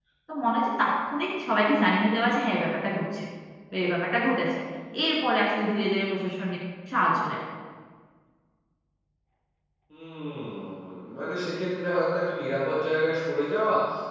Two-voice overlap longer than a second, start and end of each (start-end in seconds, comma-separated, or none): none